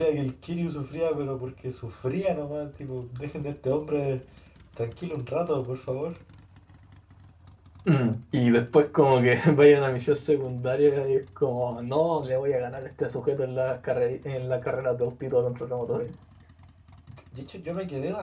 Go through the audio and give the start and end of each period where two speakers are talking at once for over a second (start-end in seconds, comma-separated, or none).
none